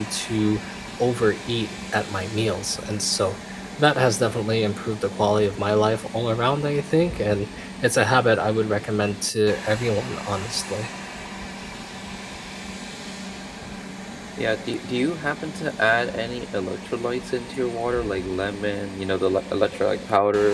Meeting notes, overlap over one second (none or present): none